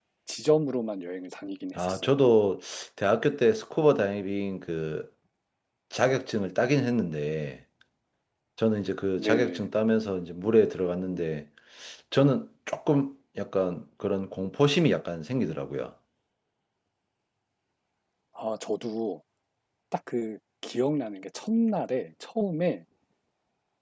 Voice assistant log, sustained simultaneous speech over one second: none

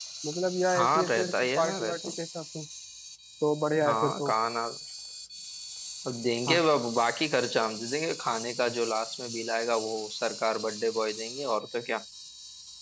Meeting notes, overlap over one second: present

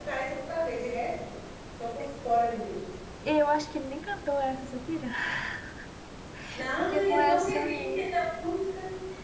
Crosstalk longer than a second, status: present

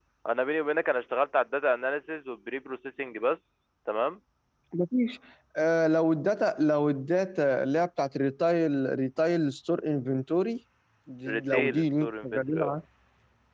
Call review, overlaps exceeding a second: present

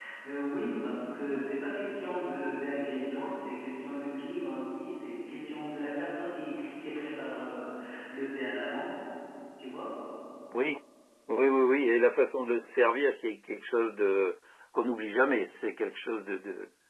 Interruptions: none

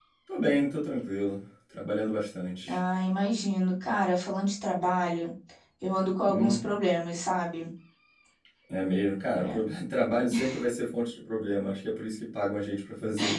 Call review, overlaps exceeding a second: none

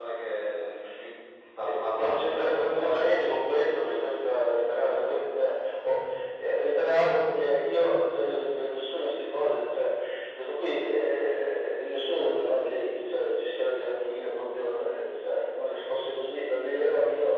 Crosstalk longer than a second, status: present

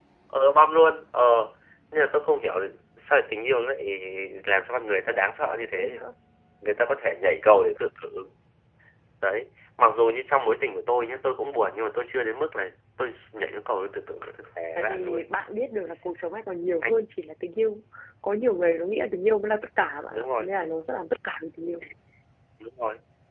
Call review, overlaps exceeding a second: none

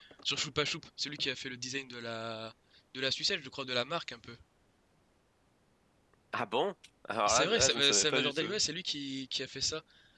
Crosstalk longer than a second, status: present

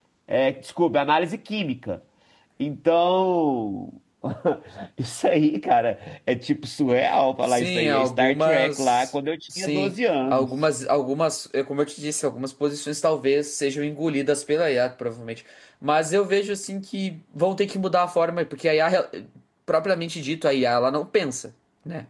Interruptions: present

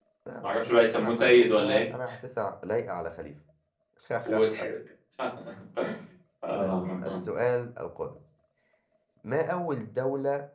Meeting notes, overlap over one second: present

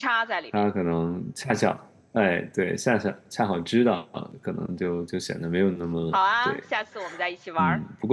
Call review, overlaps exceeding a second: none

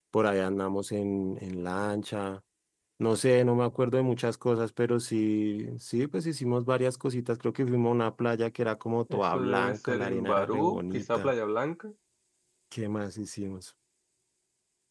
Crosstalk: present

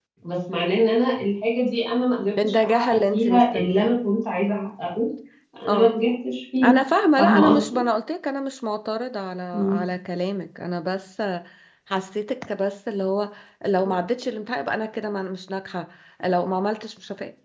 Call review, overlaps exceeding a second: present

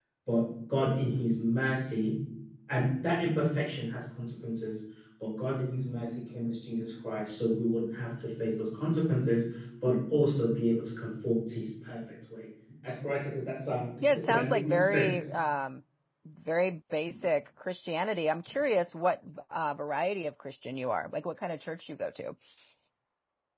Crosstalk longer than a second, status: present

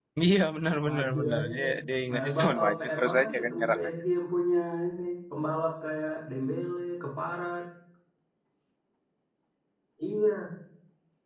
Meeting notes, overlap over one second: present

